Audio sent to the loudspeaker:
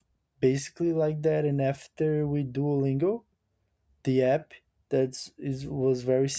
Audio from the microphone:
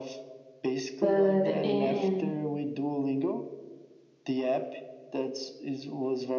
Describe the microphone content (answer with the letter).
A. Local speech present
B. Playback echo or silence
A